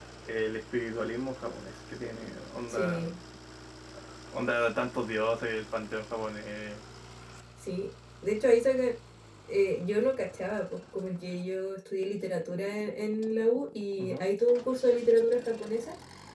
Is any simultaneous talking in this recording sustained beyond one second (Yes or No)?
No